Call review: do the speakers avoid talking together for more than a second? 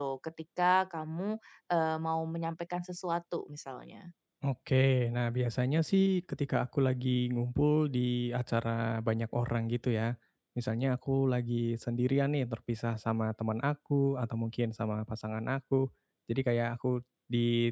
Yes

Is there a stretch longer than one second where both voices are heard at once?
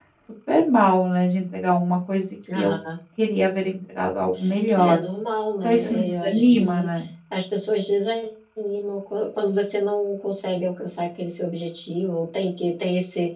Yes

